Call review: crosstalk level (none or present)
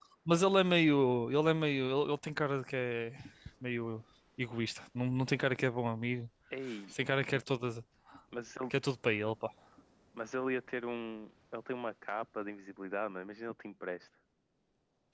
none